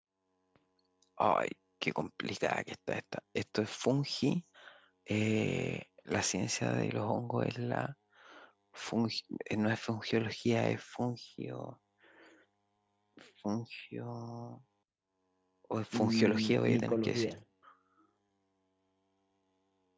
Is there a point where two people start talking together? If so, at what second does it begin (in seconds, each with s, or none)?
15.9 s